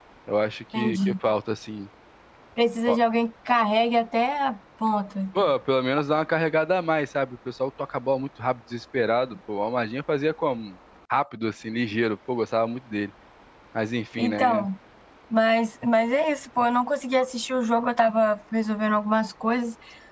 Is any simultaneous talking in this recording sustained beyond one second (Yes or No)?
No